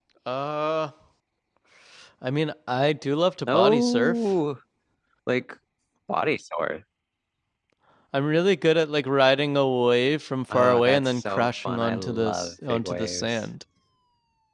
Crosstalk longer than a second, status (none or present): present